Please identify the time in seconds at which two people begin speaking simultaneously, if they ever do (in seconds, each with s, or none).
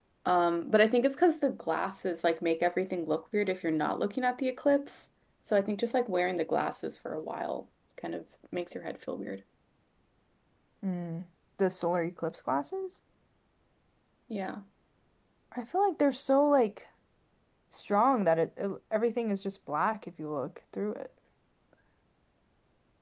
none